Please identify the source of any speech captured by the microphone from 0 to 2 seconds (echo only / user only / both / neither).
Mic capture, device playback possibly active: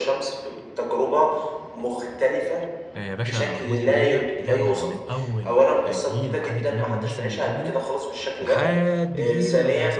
echo only